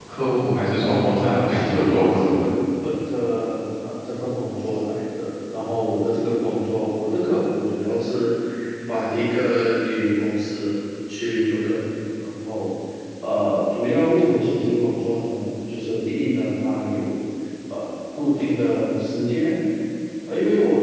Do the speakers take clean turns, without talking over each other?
No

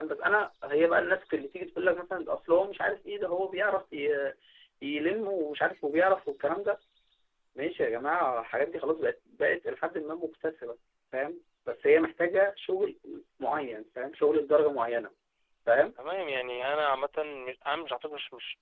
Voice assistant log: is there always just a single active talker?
Yes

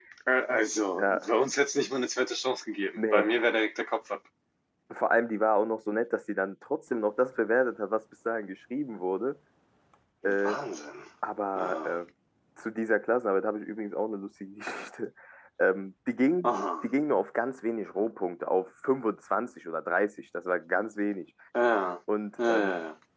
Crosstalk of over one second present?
No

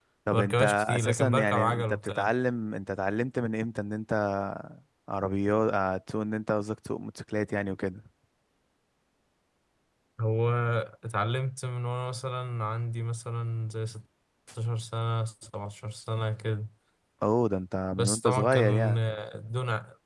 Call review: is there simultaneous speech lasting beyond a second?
Yes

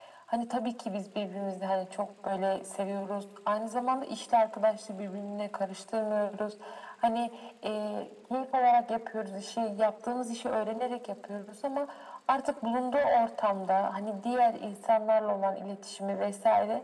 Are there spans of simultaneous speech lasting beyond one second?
No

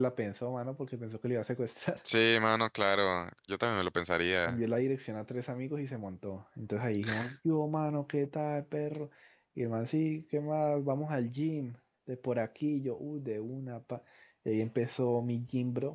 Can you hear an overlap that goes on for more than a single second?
No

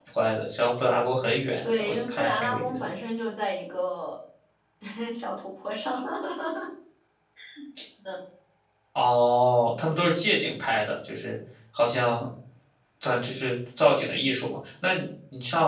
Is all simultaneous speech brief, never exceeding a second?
No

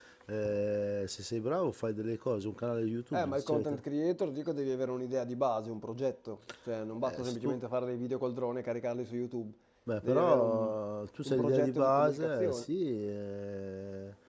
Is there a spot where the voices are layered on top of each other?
Yes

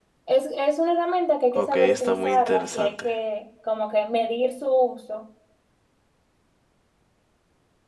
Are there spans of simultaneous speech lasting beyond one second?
Yes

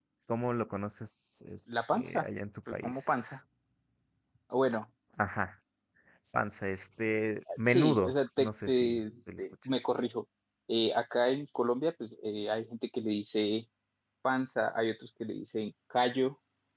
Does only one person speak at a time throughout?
No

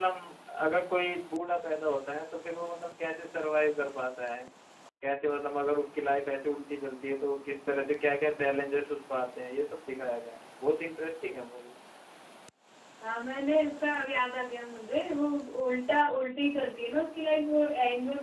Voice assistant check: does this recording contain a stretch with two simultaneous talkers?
No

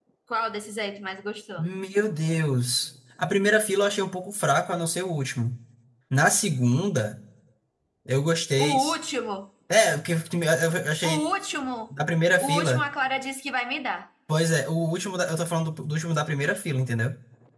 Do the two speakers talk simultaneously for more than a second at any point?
No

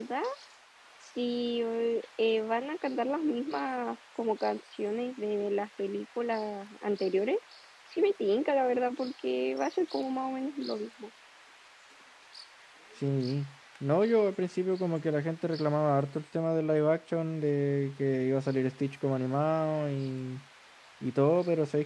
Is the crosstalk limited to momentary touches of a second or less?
Yes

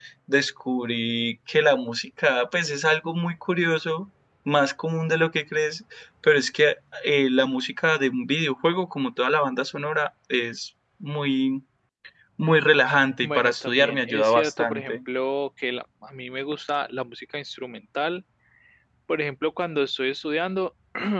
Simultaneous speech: Yes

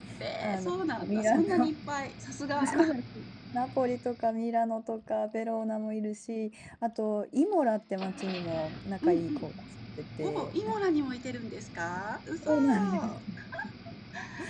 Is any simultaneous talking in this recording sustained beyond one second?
Yes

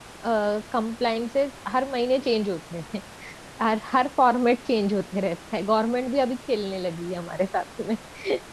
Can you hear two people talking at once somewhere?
No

